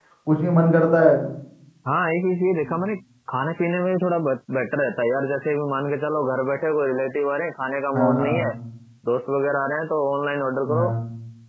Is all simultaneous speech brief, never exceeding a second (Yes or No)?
Yes